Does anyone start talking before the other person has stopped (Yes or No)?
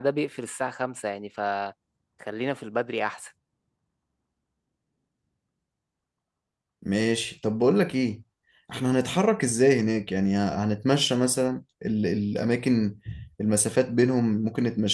No